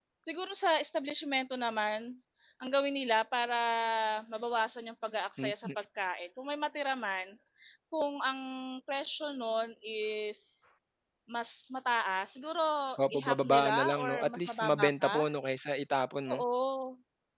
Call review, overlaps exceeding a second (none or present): present